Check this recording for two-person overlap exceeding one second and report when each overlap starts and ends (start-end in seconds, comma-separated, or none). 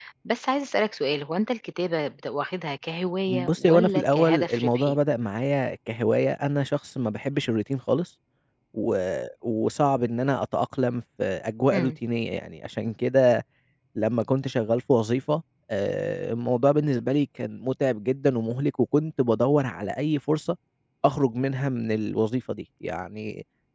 3.3-5.0